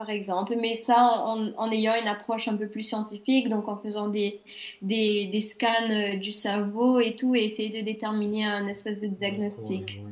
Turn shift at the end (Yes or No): Yes